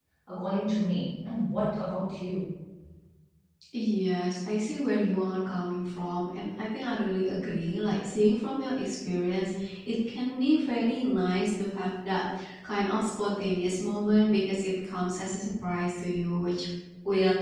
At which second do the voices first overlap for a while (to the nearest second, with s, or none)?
none